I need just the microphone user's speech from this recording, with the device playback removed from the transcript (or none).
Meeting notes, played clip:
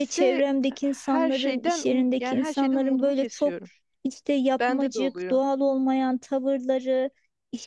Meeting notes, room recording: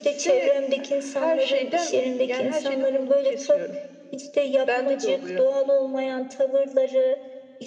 none